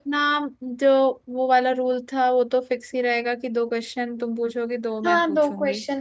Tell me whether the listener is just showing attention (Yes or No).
No